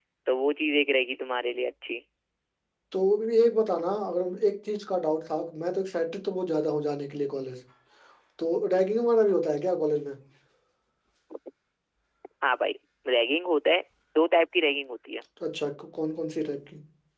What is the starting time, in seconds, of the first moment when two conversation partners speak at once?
none

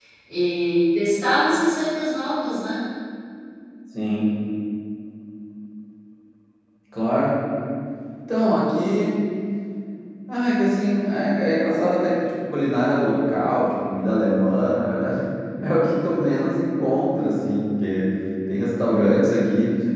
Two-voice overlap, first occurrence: none

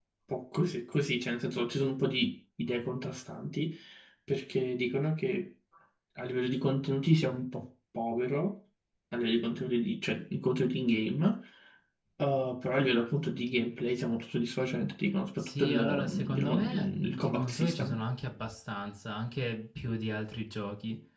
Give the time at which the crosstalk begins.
15.4 s

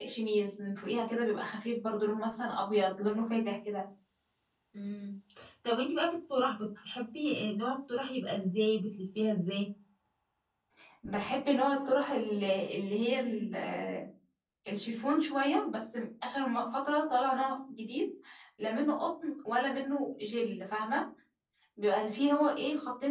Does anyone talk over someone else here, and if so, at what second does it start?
none

